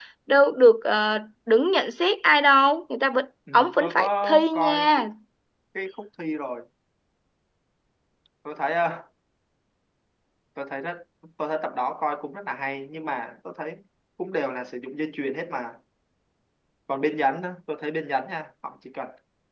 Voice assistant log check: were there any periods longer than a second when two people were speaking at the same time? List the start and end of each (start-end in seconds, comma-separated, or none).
3.5-5.0